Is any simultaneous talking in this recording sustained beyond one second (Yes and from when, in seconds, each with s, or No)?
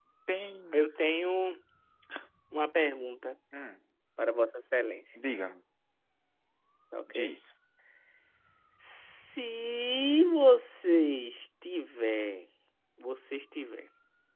No